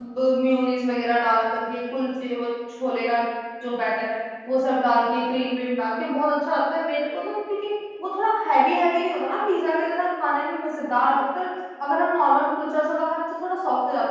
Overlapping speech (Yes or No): No